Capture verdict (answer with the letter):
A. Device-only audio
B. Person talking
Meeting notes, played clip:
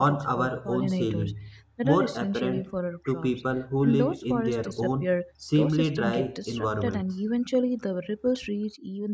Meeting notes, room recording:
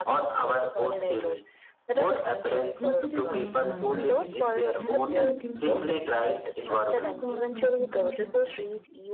B